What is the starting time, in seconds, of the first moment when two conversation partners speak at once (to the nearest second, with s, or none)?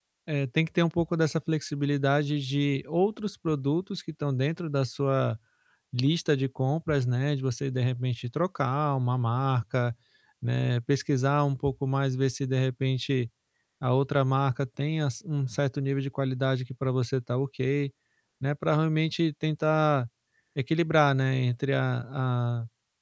none